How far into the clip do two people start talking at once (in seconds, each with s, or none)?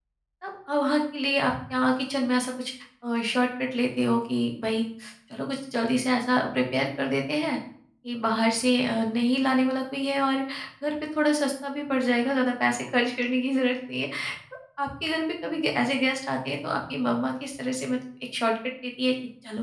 none